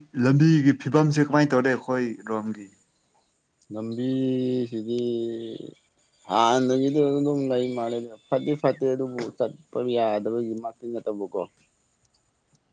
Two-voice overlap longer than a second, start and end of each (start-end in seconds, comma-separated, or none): none